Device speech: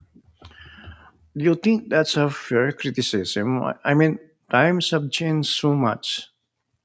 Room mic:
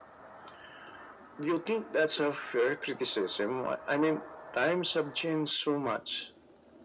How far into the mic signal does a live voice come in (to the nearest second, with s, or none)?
none